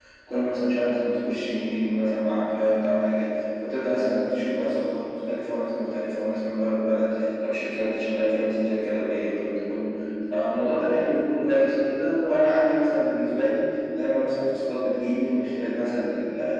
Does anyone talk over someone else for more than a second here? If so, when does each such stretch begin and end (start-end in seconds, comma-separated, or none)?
none